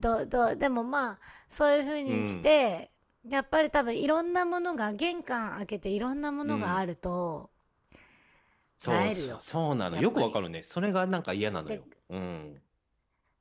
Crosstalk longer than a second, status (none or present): none